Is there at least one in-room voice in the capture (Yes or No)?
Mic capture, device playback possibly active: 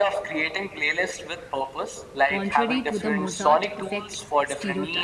Yes